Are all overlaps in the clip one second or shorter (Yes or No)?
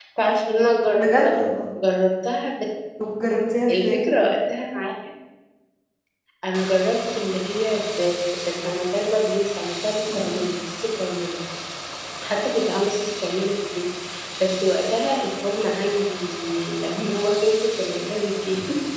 Yes